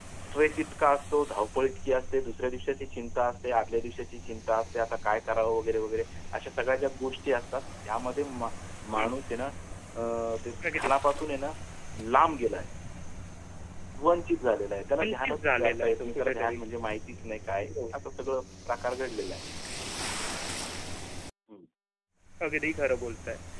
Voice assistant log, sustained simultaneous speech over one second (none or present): present